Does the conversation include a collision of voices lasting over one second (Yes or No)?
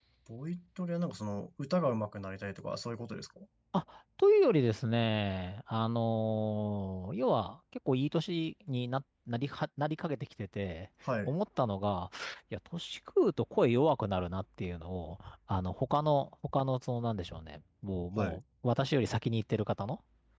No